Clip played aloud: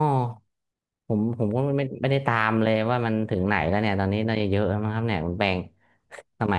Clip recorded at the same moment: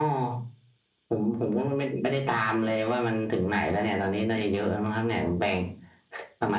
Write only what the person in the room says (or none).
none